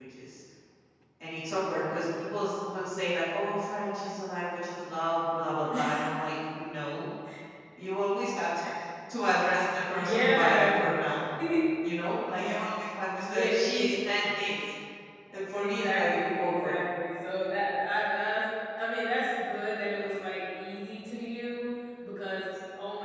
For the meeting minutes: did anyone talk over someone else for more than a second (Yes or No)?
Yes